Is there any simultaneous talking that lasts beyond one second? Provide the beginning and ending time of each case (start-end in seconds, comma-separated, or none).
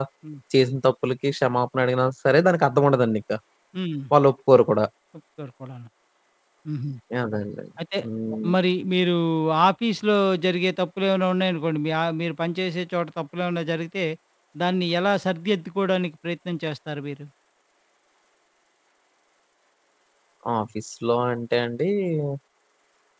none